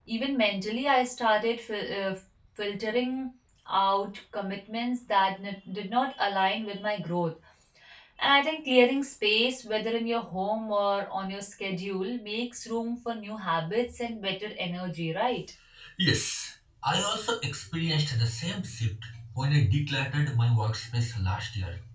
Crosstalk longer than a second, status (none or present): none